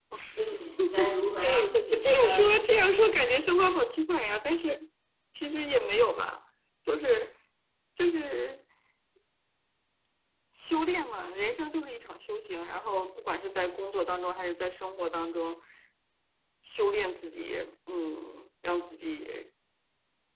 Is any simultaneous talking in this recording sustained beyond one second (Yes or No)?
Yes